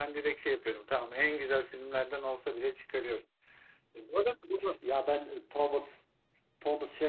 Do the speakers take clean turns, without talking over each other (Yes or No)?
Yes